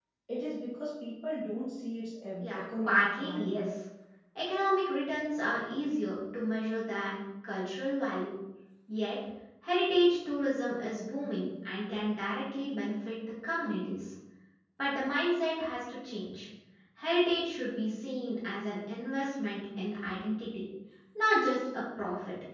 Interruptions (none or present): present